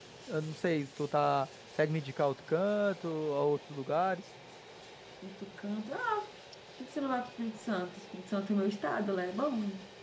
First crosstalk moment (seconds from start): none

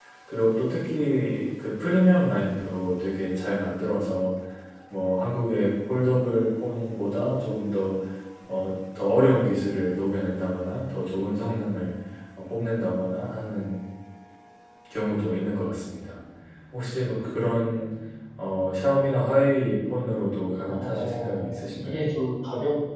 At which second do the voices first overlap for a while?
20.7 s

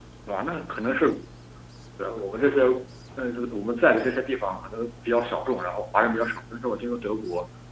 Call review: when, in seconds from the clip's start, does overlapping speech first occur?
none

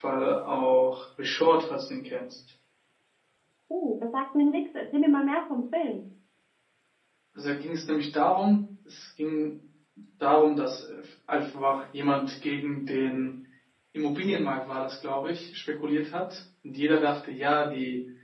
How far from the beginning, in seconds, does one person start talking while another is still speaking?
none

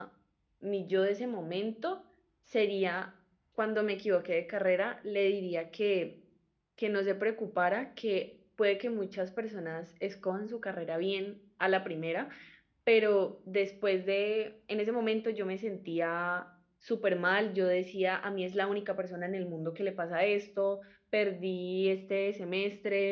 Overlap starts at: none

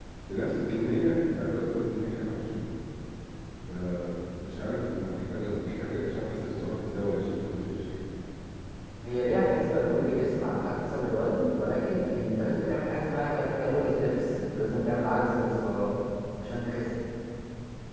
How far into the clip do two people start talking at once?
none

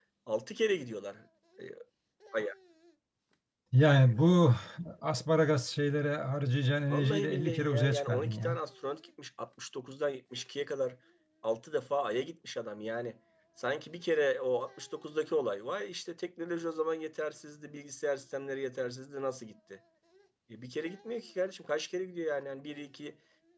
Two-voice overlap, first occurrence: 6.9 s

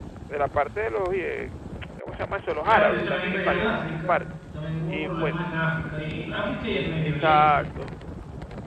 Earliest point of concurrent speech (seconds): 2.6 s

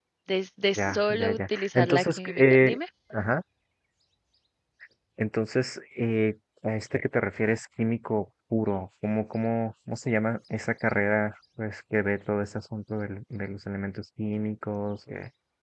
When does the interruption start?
0.8 s

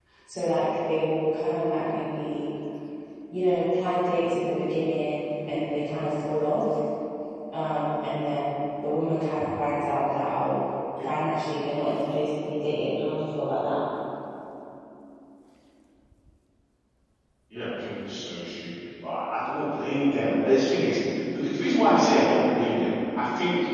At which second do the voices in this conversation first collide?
none

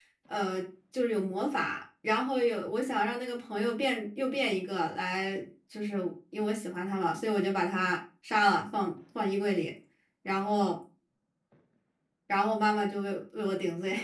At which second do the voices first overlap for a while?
none

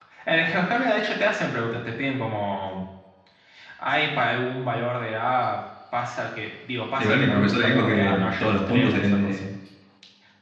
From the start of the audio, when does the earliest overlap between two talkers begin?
7.0 s

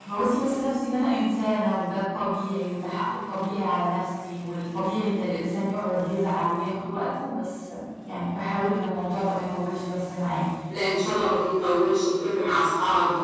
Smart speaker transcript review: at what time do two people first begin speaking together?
none

